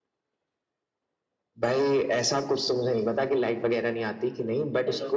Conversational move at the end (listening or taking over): listening